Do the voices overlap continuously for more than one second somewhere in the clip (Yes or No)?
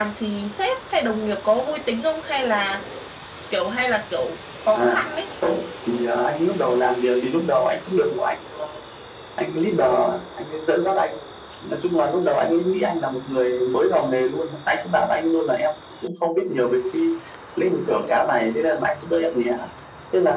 No